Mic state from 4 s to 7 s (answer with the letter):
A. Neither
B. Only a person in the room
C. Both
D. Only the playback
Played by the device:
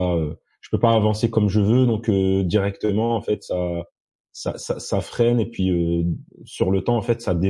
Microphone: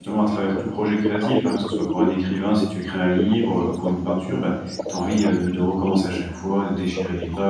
C